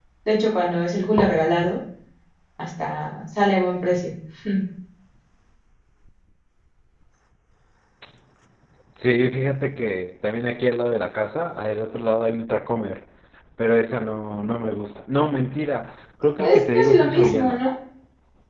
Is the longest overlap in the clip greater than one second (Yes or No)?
Yes